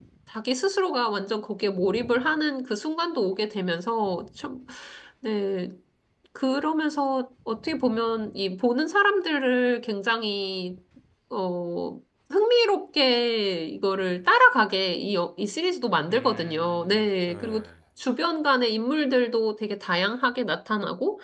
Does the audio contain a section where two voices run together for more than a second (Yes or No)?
Yes